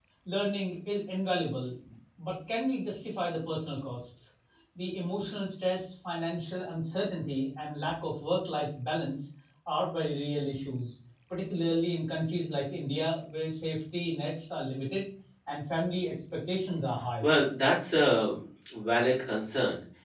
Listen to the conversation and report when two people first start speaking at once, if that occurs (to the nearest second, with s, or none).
none